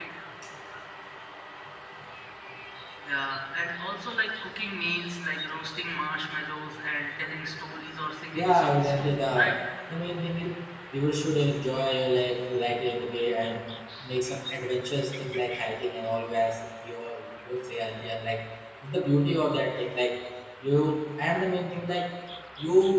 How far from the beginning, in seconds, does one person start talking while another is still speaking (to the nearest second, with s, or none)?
8 s